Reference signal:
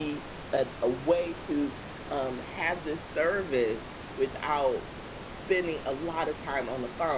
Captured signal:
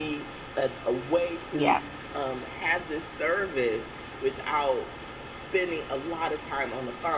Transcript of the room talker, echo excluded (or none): Yes,